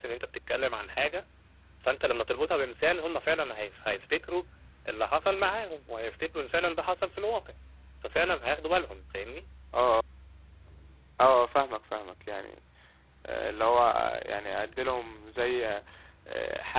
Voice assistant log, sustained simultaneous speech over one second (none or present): none